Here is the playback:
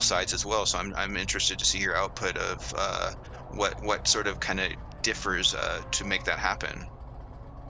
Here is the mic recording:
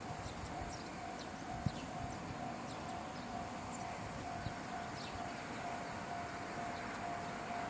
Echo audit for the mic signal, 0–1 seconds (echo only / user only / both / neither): neither